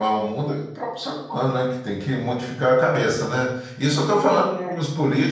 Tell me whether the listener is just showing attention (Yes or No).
Yes